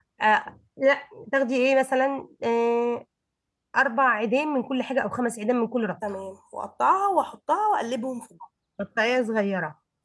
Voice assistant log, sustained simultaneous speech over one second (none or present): none